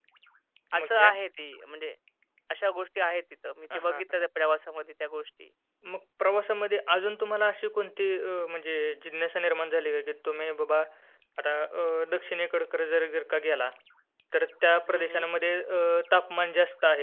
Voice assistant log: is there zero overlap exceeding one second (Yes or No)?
Yes